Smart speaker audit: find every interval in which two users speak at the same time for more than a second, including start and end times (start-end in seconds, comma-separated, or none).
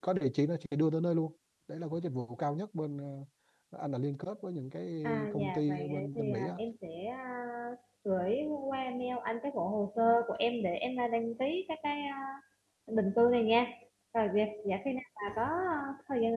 5.3-6.5